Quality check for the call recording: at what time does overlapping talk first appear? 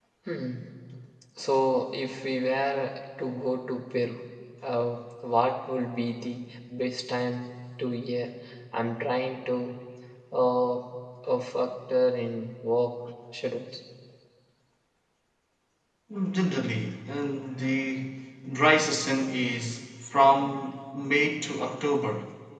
none

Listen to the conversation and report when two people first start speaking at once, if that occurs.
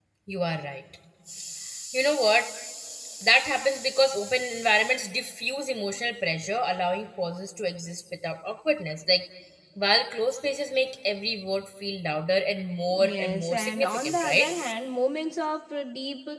12.9 s

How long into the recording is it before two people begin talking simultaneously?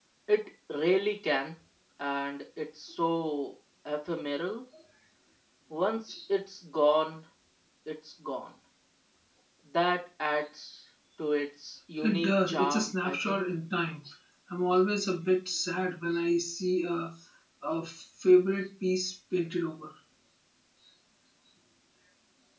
12.0 s

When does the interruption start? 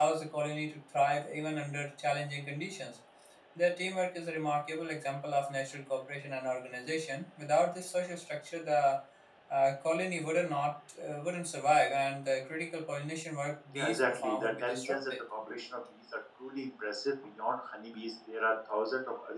13.7 s

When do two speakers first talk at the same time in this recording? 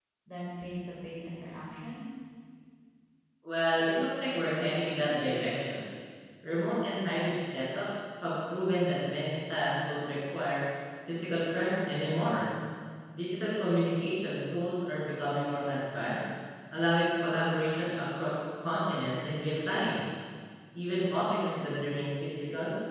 none

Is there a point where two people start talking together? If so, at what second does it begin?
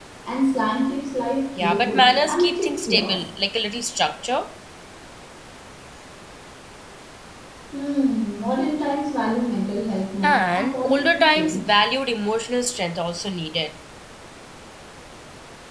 1.6 s

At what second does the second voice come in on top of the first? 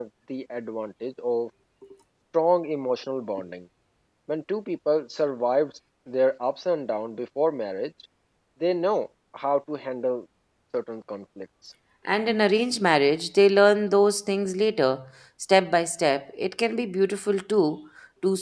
none

